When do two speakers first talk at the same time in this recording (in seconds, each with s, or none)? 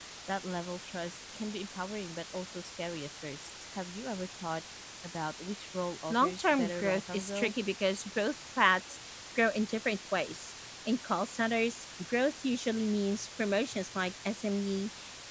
6.1 s